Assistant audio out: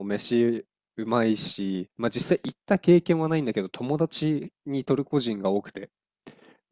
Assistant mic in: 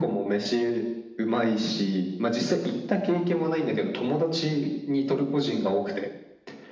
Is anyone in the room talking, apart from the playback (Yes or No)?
No